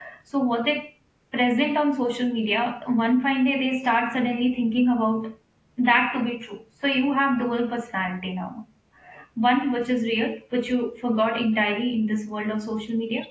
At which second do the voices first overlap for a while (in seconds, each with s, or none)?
none